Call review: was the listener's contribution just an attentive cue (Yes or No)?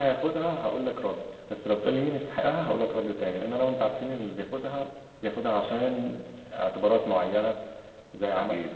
Yes